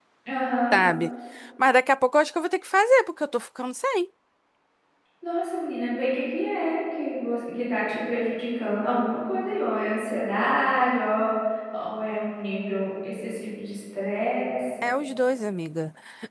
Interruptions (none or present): none